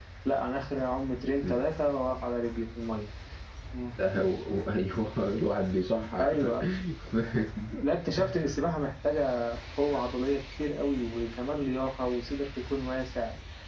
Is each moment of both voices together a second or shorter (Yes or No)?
Yes